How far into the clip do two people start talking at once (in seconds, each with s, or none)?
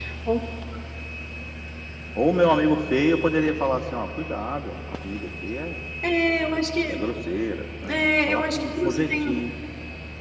7.9 s